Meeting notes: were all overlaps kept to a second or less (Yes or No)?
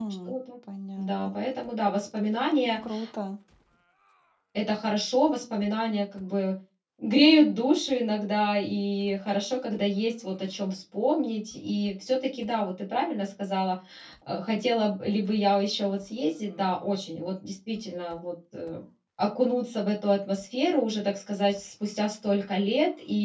Yes